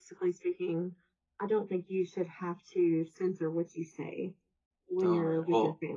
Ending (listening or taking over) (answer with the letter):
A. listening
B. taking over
B